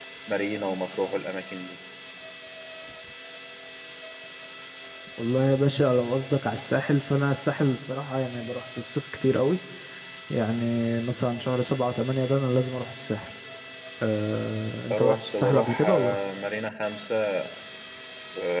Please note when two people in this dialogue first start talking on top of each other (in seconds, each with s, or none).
14.9 s